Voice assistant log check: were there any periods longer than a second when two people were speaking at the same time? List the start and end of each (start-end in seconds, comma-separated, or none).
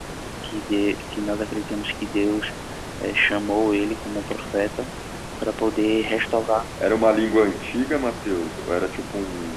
none